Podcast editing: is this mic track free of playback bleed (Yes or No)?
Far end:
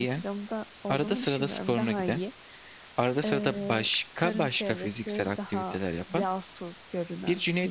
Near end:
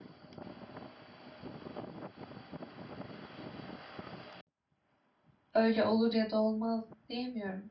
Yes